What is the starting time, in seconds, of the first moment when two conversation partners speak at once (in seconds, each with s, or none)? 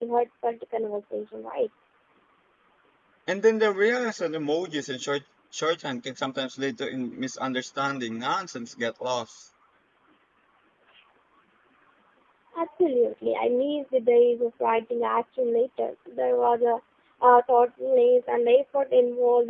none